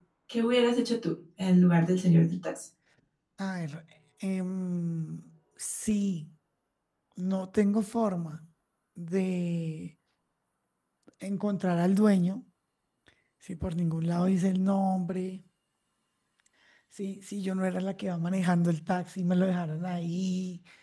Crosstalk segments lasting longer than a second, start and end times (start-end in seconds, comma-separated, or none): none